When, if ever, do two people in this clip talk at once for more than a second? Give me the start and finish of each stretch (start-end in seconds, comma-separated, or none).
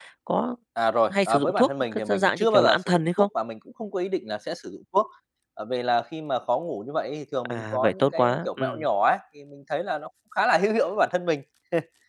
1.1-3.3, 7.4-8.8